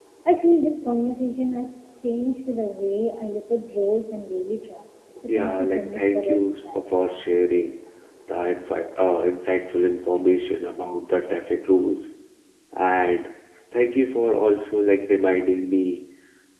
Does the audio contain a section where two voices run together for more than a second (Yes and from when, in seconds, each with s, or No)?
Yes, from 5.3 s